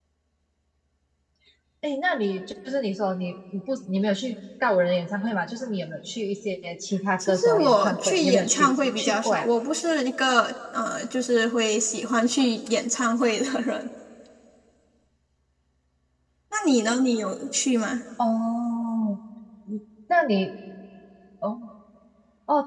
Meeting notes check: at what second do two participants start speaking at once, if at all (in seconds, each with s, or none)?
7.2 s